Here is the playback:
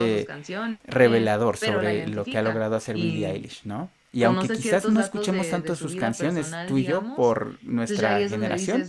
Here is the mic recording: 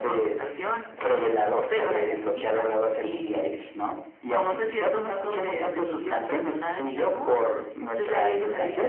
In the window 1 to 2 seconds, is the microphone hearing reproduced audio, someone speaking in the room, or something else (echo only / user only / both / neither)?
echo only